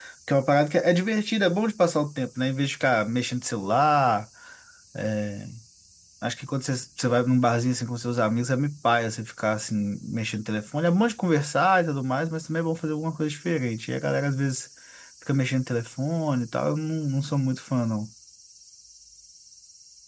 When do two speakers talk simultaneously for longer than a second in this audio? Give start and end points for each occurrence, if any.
none

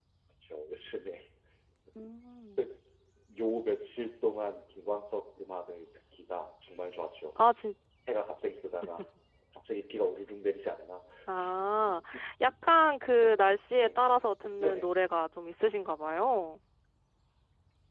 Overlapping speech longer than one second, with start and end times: none

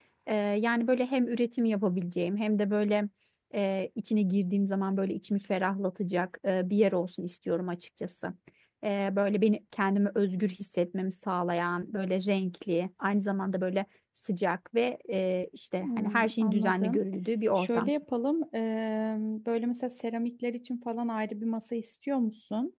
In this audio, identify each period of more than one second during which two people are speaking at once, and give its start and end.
15.8-17.0

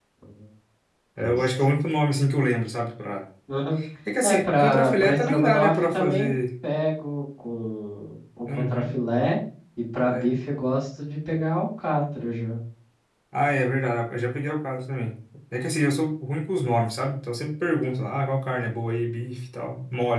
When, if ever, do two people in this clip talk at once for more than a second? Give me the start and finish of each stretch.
4.2-6.3

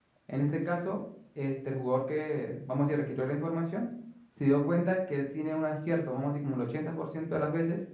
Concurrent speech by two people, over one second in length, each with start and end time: none

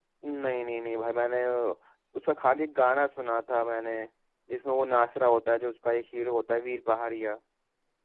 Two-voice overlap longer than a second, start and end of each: none

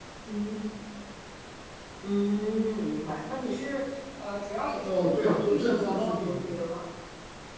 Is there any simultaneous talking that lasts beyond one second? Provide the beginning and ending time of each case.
4.8-6.4

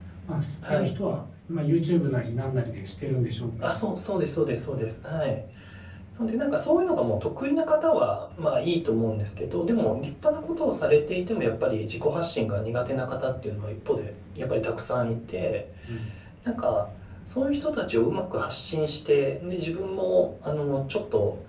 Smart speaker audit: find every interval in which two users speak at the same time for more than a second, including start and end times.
none

